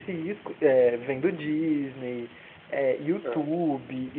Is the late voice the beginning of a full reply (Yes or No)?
No